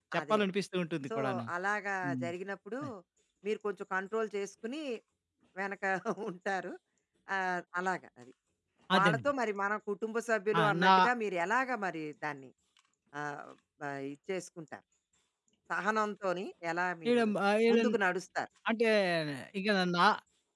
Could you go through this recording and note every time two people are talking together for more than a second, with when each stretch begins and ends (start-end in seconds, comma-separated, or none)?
none